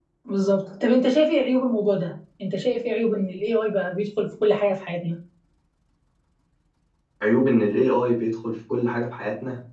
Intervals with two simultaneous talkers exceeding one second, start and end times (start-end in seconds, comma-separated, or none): none